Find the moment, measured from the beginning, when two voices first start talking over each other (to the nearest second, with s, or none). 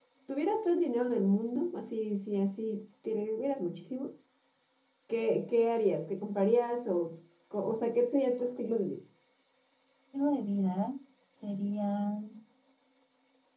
none